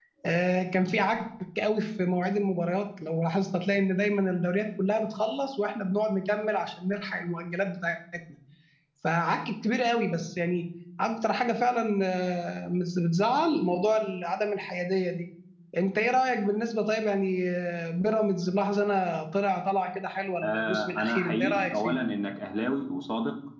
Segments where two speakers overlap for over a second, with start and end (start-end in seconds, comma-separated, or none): 20.4-22.0